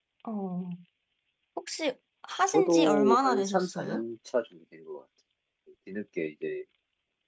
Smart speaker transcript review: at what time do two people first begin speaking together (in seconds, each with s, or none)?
2.5 s